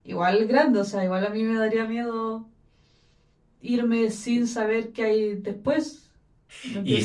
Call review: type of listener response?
taking over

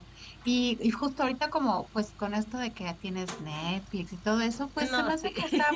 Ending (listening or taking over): listening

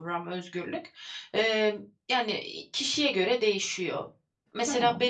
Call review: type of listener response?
listening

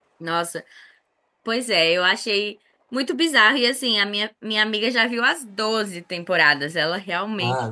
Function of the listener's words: taking over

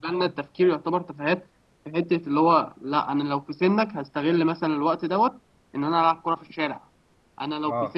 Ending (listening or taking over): taking over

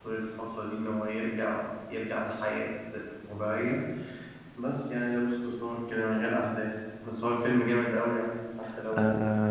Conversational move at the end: taking over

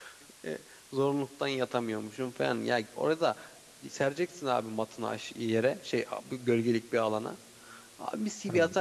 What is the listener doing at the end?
listening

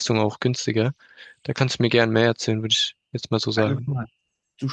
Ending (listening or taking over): taking over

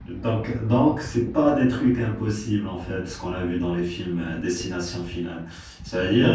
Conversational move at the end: listening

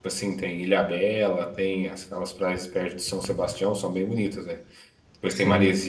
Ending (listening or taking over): listening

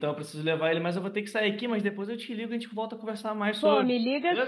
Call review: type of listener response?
taking over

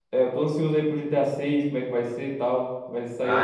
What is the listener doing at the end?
taking over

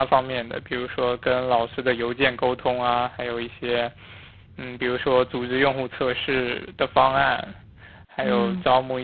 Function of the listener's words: listening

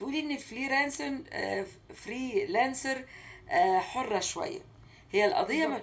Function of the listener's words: listening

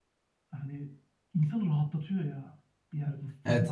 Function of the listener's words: taking over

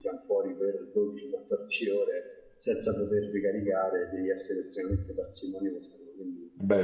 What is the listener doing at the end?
listening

